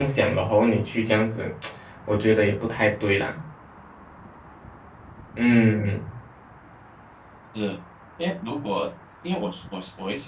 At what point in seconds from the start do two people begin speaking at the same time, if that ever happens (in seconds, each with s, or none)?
none